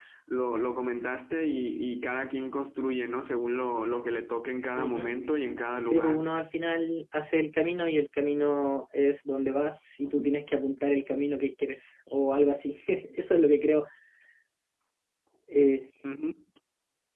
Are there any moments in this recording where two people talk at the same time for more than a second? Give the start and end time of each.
none

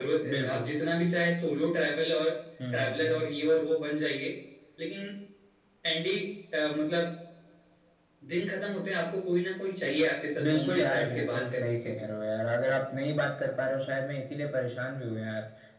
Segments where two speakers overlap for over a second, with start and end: 10.4-12.0

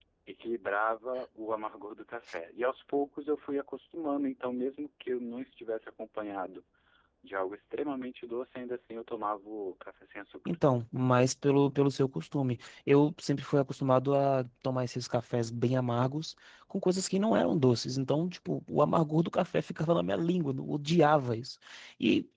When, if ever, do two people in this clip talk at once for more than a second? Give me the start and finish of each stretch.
none

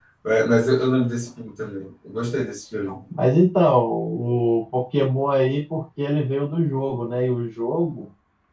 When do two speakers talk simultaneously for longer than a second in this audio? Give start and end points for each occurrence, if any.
none

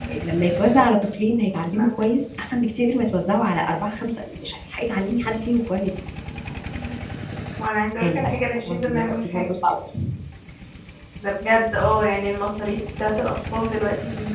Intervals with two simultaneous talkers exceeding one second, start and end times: 8.0-9.5

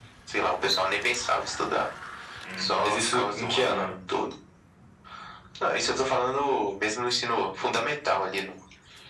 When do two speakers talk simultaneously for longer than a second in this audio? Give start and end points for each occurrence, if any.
2.6-4.0

